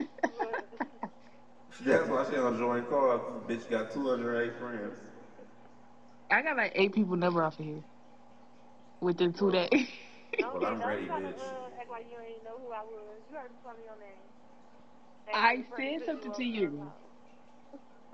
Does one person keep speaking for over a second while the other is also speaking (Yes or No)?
Yes